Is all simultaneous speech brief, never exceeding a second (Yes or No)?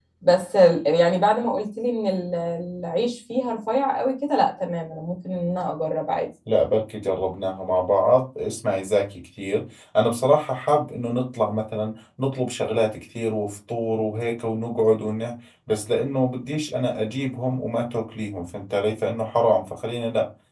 Yes